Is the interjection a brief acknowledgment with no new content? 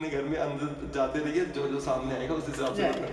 No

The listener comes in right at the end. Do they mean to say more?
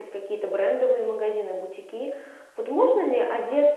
No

